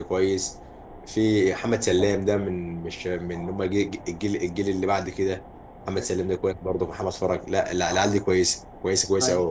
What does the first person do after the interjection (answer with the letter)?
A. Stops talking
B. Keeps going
A